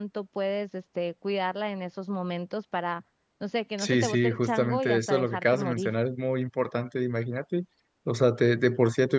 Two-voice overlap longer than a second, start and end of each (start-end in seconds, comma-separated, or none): 3.8-5.9